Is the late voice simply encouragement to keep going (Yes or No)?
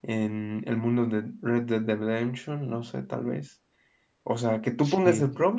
Yes